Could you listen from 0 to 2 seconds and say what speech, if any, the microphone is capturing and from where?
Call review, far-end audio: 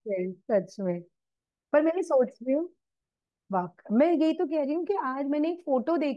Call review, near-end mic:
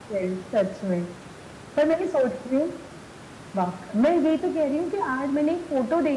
echo only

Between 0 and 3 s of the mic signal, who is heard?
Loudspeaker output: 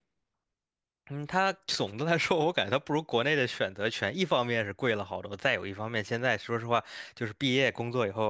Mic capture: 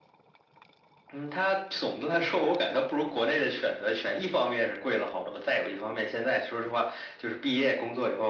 echo only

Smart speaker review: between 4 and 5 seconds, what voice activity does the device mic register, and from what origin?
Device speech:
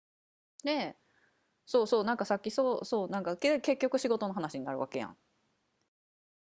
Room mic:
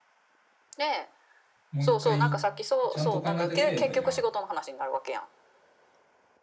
both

